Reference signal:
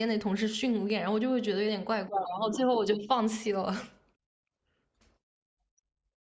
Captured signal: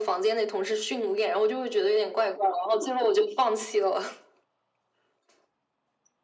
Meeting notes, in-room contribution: none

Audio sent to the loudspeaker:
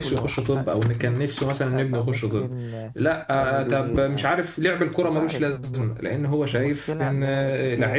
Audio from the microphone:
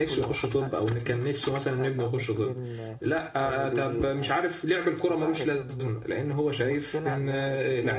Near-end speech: none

